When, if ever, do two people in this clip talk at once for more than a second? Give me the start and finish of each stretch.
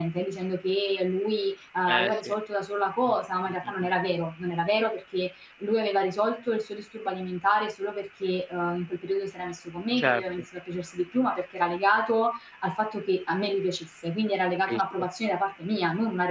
none

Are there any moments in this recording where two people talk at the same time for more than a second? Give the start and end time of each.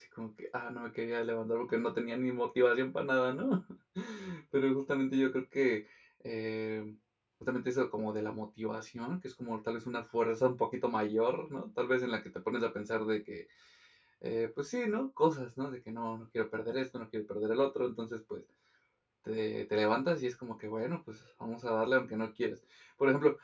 none

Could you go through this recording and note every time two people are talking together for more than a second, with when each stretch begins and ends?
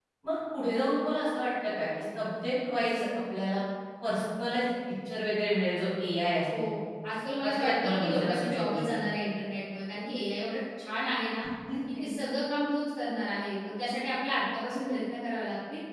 7.4-8.9

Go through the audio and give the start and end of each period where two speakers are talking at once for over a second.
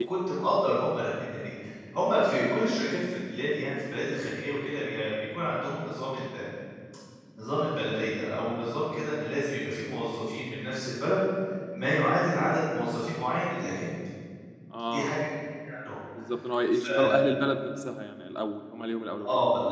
none

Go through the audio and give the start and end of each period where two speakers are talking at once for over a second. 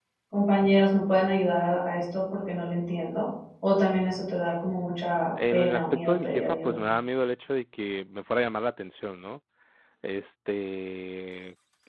5.5-6.8

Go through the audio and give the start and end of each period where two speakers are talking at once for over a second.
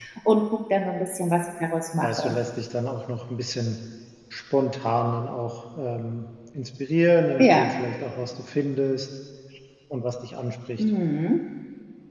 none

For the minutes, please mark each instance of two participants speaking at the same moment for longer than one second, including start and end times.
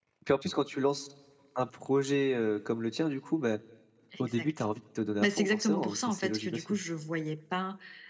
5.2-6.8

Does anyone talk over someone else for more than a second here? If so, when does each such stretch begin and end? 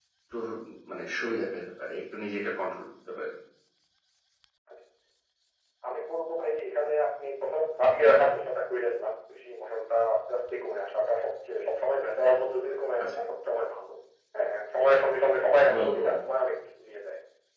none

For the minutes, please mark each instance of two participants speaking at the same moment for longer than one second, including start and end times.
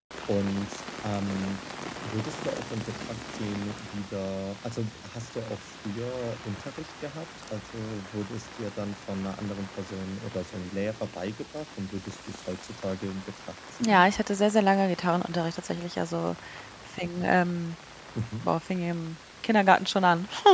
none

